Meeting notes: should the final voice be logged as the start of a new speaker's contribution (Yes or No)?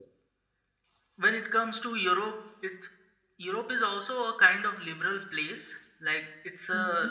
No